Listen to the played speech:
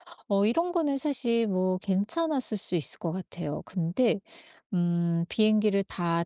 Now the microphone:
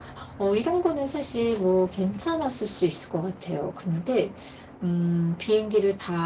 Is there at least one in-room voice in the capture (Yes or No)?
No